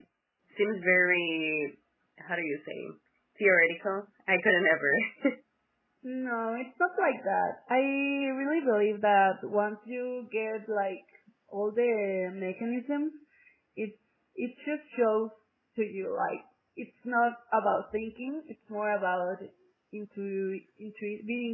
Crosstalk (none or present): none